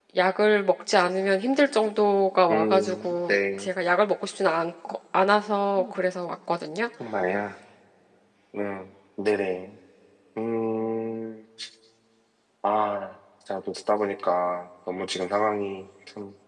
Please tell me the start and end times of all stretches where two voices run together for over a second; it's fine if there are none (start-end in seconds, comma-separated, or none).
2.5-3.7